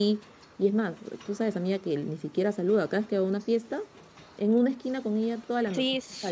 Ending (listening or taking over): taking over